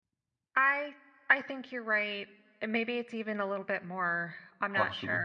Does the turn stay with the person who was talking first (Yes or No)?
No